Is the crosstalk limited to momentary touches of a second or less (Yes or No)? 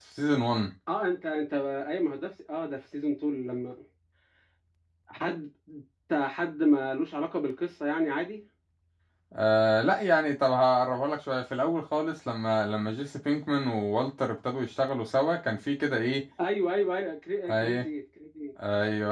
Yes